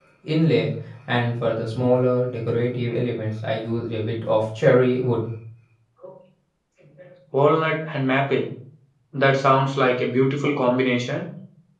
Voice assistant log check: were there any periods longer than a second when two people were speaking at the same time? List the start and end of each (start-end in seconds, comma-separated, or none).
none